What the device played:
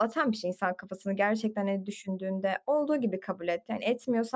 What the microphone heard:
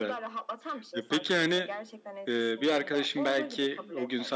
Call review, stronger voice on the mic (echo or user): user